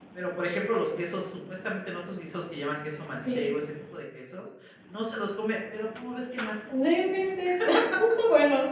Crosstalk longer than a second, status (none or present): none